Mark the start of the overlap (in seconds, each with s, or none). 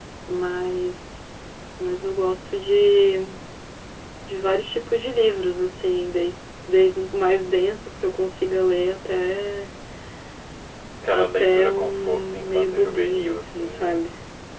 11.1 s